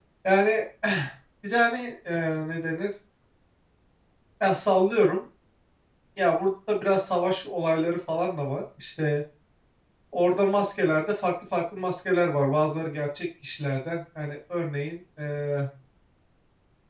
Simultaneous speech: No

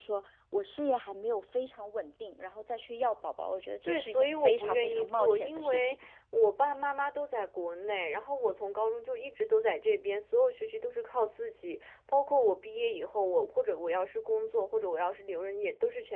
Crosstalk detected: Yes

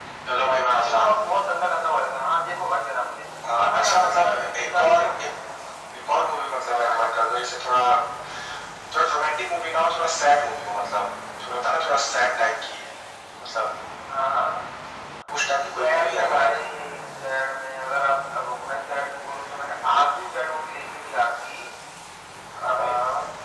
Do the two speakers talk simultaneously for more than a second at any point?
Yes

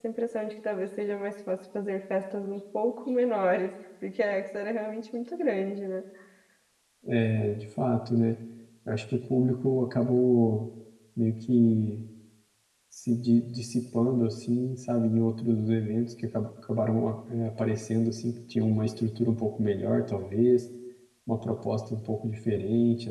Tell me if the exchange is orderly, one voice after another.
Yes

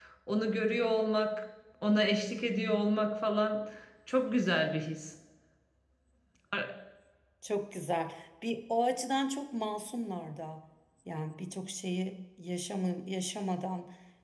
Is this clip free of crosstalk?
Yes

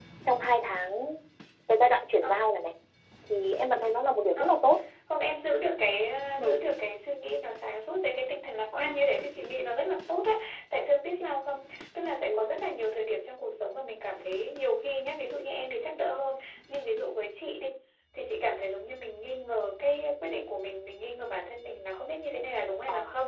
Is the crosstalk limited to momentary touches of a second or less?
Yes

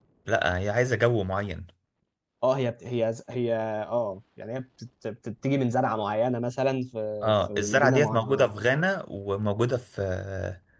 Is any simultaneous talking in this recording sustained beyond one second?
Yes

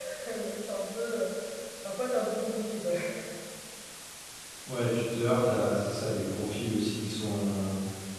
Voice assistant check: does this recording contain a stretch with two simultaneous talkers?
No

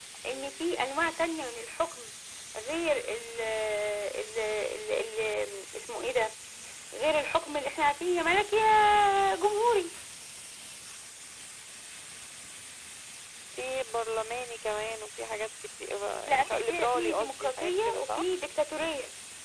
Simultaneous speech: Yes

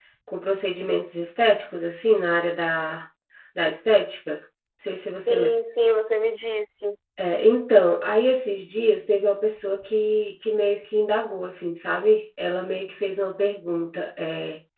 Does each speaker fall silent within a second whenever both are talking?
Yes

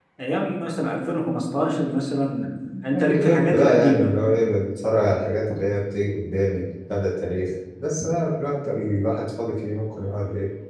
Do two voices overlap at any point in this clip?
Yes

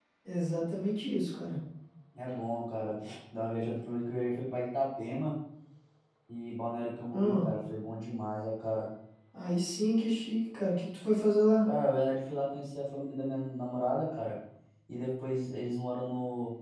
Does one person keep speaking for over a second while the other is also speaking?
No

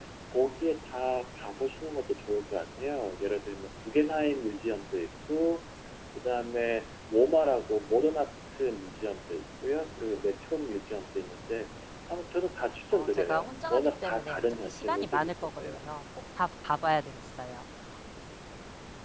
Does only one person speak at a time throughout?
No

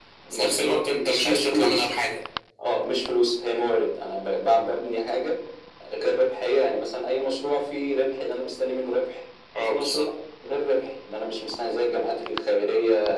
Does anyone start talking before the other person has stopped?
Yes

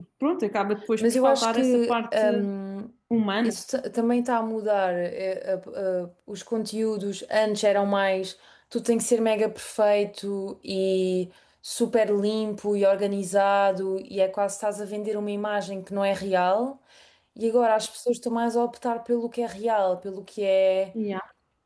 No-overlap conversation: No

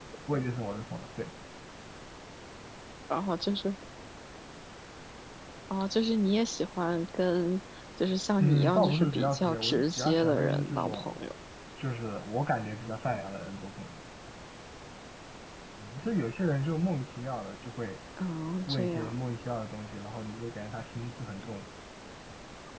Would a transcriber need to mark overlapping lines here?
Yes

